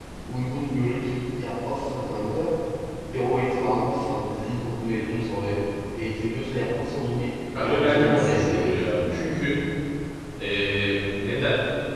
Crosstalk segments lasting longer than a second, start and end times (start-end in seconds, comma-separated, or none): 7.6-9.2